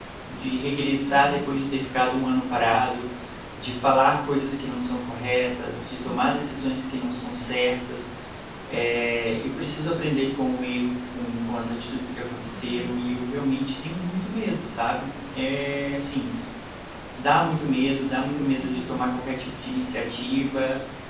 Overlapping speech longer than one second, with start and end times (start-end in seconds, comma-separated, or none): none